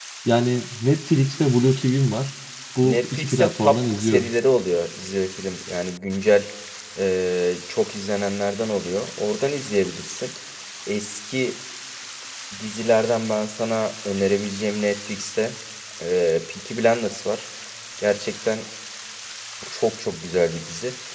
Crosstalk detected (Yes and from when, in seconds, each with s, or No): Yes, from 2.8 s